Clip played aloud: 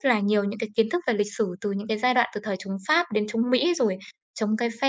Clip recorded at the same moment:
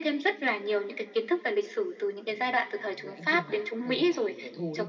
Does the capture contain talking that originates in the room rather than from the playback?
Yes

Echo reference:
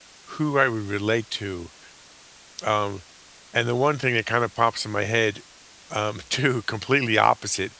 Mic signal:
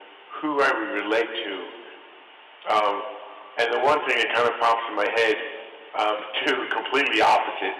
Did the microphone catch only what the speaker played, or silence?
Yes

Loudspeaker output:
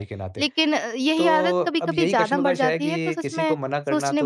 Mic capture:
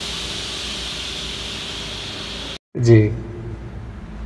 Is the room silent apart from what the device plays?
No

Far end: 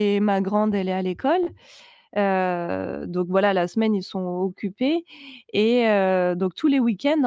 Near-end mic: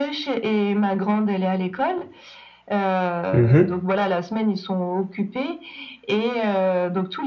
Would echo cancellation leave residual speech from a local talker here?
Yes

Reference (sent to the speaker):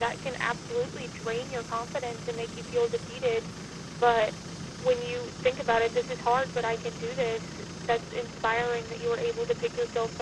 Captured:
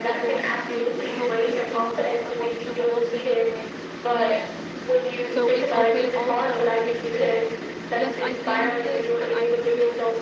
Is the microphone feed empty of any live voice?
No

